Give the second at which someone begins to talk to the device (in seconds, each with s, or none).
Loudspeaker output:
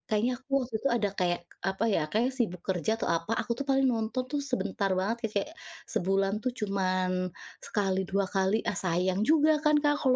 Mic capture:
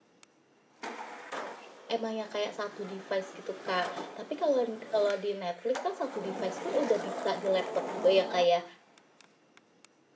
1.9 s